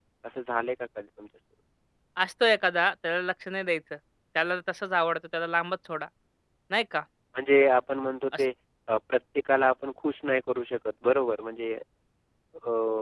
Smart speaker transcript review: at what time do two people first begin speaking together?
none

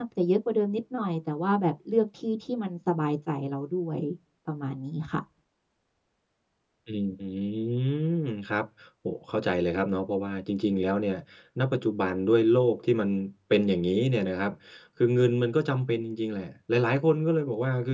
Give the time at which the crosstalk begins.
none

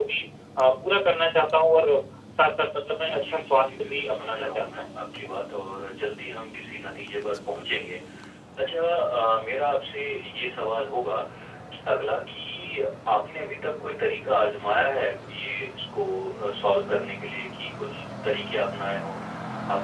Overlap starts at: 3.0 s

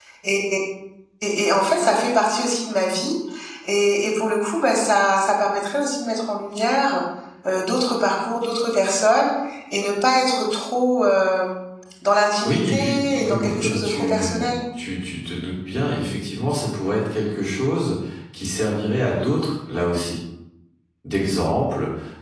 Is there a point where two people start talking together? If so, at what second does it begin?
12.4 s

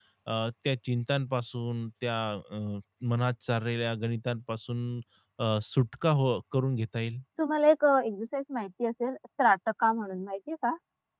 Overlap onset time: none

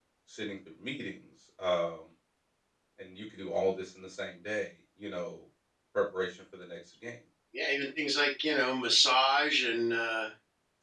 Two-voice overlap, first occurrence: none

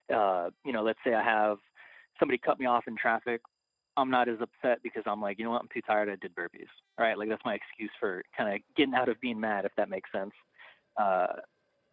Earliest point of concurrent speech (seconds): none

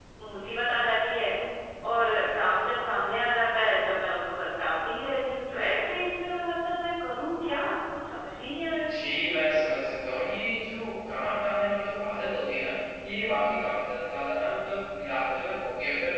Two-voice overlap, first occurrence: none

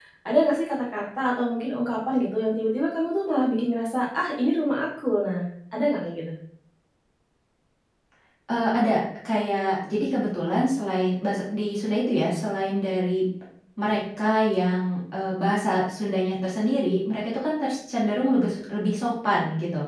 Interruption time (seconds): none

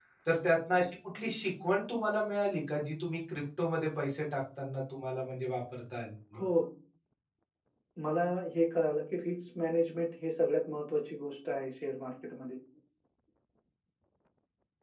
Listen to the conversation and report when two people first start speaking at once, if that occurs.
none

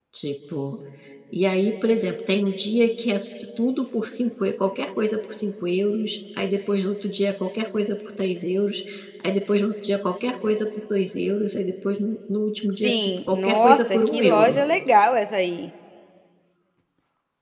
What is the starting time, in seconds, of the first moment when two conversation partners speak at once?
12.8 s

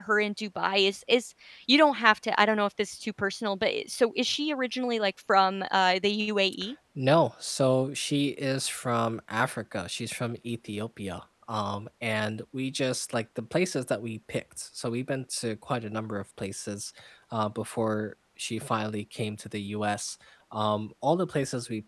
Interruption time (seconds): none

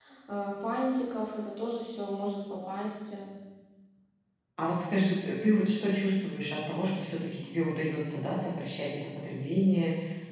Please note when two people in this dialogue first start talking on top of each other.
none

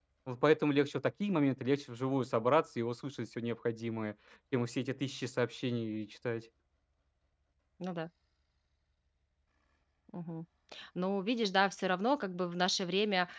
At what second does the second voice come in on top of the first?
none

